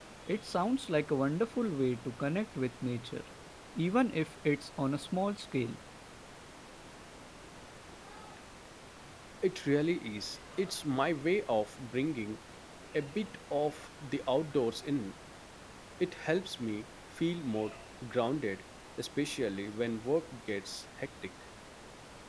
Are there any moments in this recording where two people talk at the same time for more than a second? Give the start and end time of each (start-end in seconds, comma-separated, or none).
none